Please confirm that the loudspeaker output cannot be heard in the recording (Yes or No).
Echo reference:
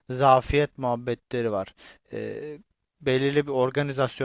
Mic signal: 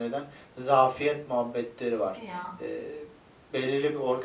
No